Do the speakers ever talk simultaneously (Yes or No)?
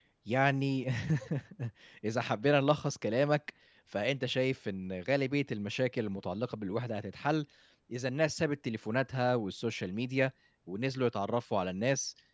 No